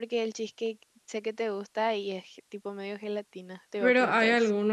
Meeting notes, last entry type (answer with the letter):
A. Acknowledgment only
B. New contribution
B